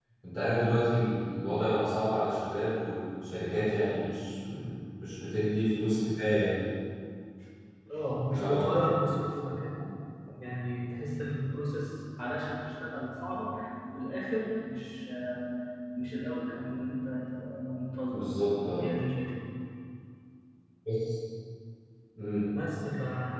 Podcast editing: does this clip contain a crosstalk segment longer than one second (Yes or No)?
No